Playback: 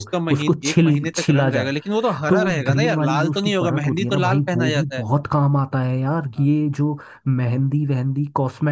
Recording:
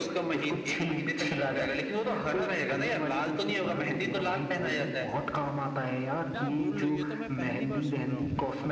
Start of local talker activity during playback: 6.3 s

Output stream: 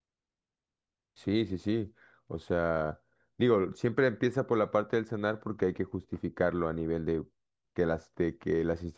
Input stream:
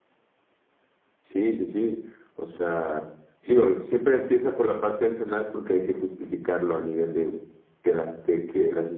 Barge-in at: none

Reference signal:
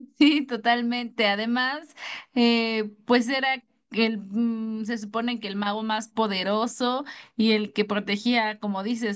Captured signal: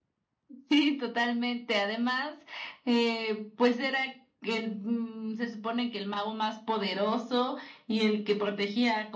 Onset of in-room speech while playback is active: none

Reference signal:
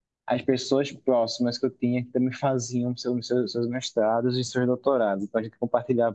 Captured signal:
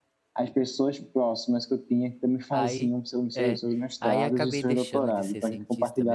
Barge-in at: 2.5 s

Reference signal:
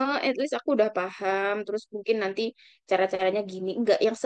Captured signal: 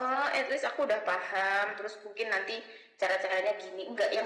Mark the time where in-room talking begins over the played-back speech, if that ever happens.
none

